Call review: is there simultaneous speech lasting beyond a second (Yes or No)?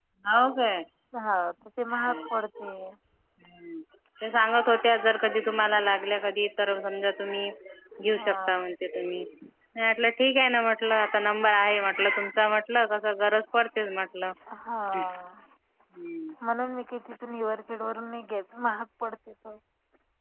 No